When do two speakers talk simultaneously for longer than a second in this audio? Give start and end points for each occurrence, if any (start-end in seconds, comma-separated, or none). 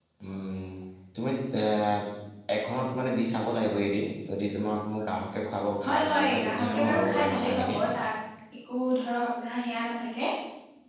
5.8-7.8